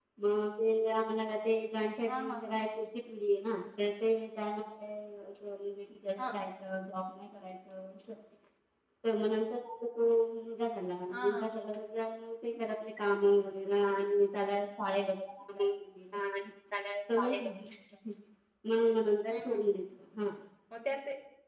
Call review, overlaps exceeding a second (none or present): none